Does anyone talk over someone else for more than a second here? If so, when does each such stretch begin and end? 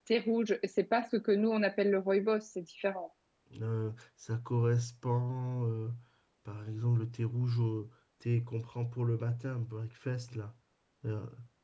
none

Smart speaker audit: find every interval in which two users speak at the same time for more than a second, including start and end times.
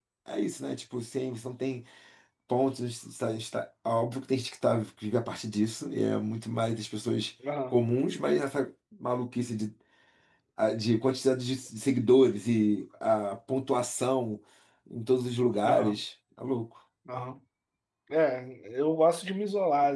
none

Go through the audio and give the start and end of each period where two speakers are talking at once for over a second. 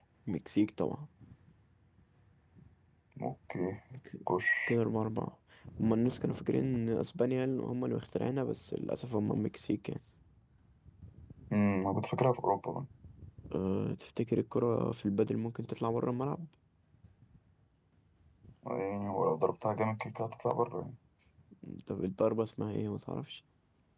none

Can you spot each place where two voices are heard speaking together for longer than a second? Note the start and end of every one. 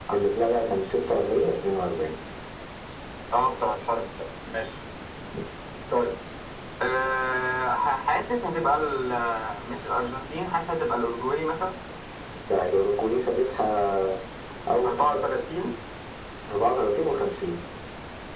none

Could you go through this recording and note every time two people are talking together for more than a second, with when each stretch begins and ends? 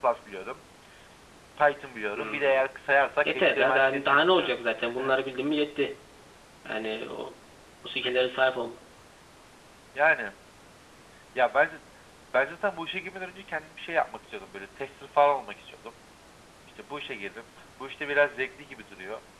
3.3-4.6

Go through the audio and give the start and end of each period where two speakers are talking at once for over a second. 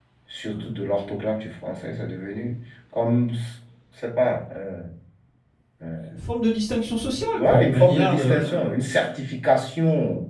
7.3-9.1

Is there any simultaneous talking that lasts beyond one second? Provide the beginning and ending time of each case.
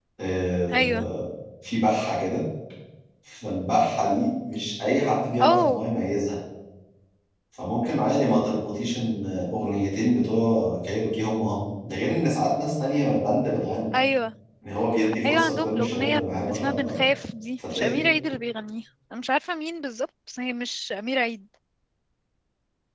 15.2-17.0

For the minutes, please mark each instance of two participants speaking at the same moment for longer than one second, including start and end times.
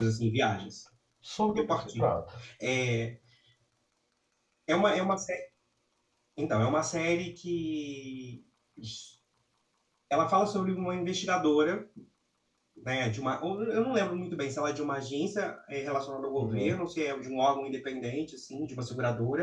none

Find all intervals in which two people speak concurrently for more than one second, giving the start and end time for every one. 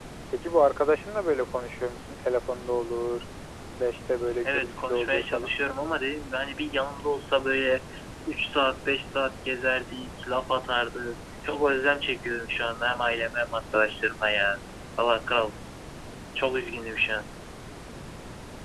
4.4-5.8

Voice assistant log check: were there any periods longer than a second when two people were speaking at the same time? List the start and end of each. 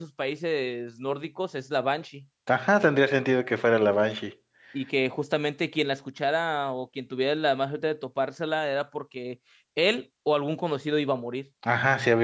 none

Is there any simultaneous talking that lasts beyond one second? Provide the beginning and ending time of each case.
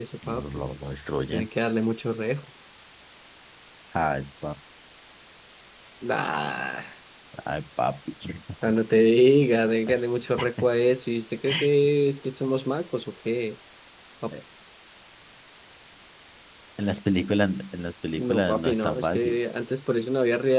18.2-19.4

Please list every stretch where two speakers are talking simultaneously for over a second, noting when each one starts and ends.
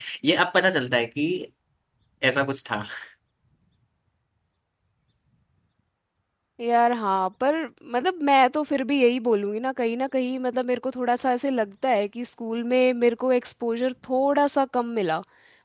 none

